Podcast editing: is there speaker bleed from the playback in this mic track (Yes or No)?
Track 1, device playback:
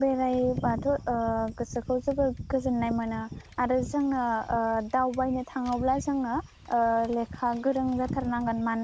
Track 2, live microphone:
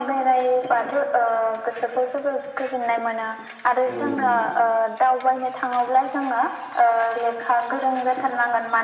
Yes